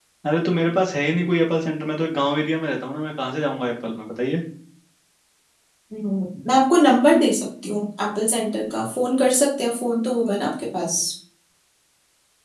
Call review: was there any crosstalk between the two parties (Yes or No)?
No